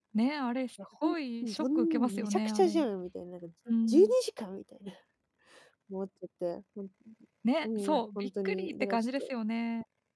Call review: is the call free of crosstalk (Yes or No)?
No